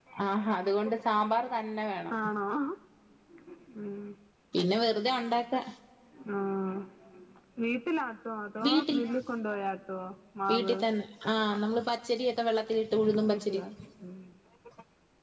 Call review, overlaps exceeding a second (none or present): none